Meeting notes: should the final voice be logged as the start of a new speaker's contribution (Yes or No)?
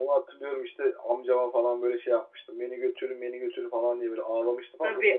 Yes